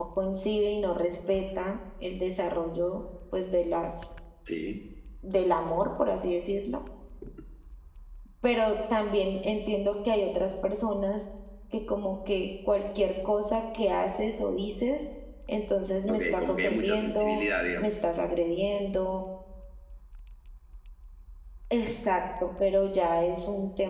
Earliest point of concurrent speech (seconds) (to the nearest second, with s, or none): 16 s